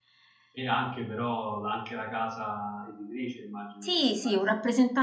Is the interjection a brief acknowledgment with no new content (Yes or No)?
No